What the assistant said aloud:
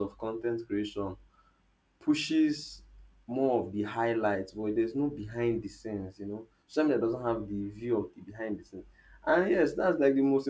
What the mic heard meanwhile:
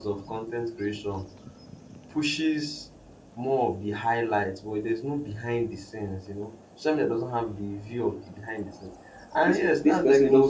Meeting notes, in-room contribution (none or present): present